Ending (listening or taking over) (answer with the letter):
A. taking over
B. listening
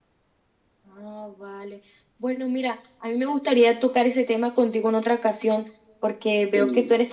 B